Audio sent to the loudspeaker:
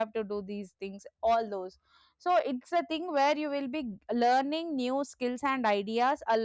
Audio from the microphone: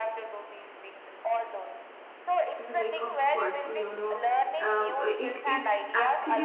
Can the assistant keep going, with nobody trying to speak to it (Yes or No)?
No